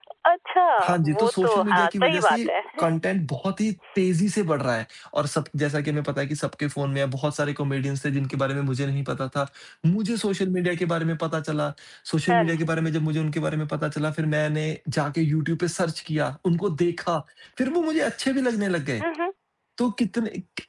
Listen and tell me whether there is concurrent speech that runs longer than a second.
Yes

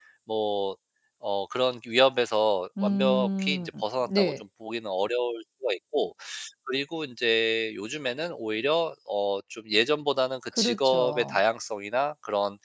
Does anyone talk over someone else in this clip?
Yes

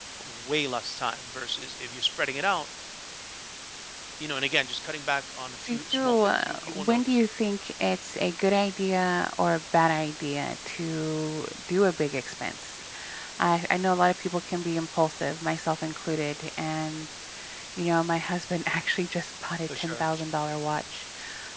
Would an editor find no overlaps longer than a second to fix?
No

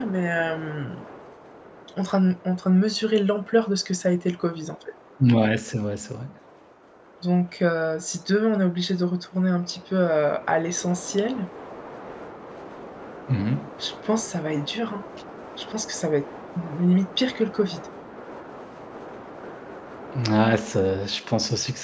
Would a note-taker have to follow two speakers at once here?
No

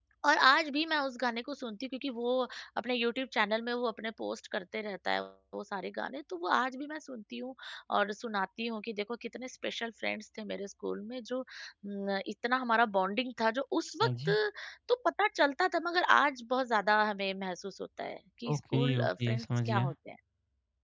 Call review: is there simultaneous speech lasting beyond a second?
Yes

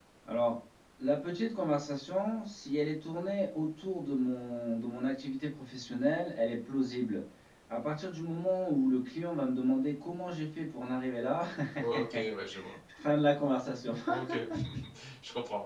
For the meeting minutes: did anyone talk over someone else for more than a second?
No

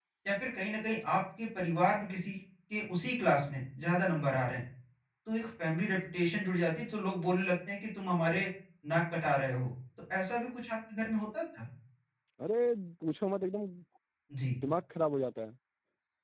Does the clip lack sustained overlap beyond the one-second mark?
Yes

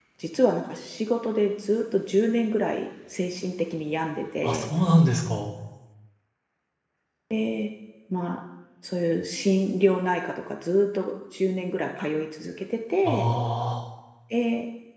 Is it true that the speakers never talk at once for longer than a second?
Yes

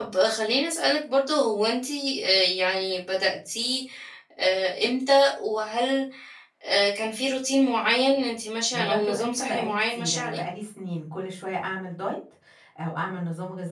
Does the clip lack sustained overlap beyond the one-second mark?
No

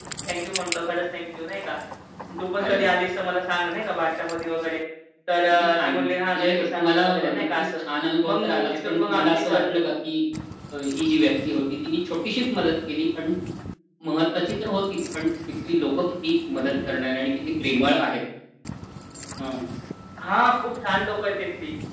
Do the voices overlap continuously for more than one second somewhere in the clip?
Yes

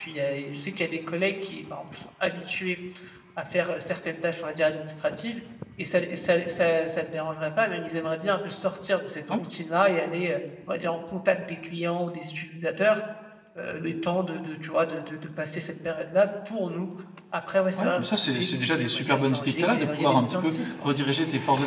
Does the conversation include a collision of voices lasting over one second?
Yes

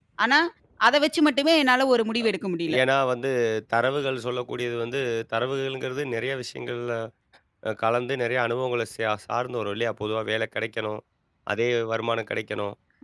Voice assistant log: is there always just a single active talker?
Yes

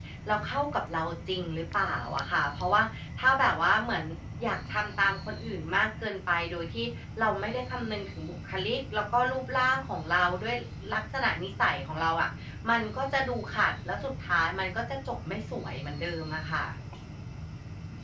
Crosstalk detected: No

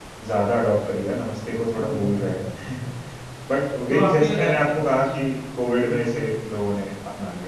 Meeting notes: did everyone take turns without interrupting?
No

